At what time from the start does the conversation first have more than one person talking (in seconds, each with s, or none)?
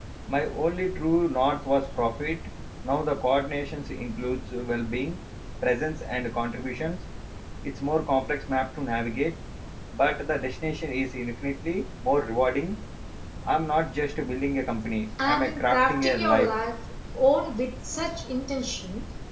15.2 s